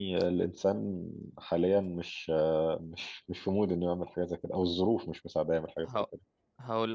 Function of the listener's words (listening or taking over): taking over